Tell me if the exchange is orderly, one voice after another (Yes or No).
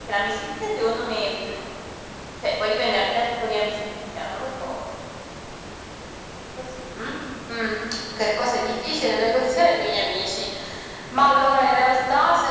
Yes